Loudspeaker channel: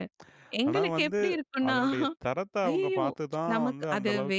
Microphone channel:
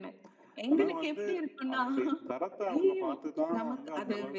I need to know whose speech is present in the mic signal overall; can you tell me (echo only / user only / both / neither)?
echo only